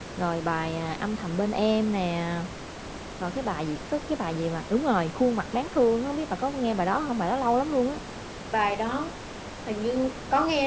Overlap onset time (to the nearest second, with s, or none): none